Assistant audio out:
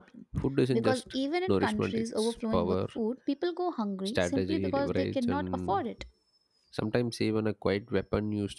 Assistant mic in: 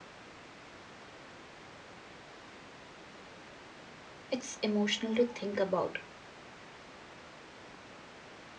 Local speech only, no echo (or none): It's emotional to think about